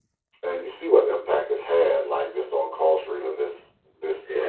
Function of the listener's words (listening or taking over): listening